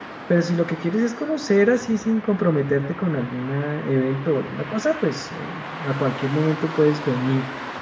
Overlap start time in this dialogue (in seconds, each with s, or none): none